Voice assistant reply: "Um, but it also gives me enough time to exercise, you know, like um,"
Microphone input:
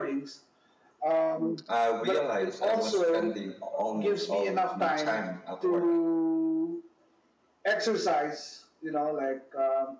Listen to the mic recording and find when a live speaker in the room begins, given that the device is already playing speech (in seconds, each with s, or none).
1.7 s